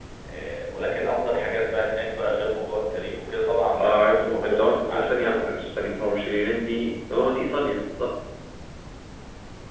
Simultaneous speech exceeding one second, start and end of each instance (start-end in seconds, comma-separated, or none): 3.8-5.5